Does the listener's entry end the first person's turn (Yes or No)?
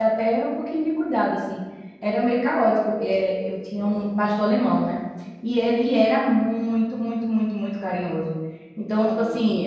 No